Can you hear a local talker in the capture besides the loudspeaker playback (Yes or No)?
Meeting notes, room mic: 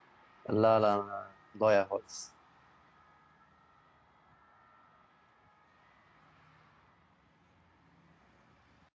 Yes